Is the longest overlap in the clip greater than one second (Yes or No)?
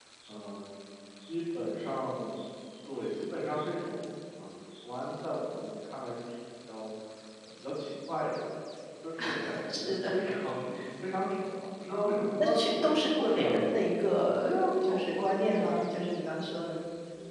Yes